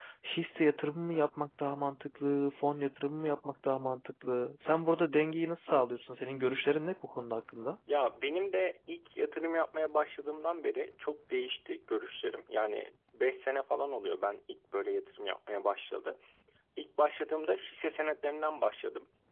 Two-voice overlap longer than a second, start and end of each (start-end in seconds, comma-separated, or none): none